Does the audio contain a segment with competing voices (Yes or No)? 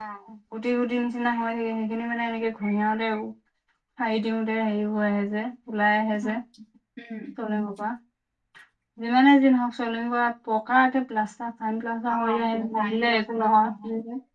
Yes